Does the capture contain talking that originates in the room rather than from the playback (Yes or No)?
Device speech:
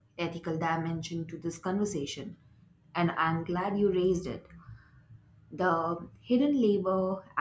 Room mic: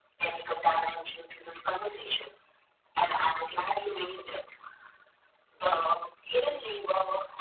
No